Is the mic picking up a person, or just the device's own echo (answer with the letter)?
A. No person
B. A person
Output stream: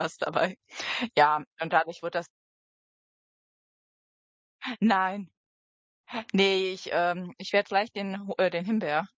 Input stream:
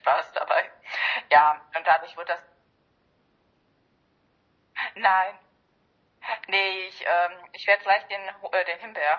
A